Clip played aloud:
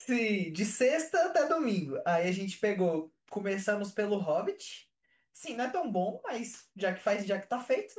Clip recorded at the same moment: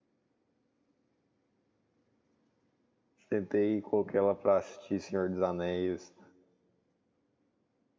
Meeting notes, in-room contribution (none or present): present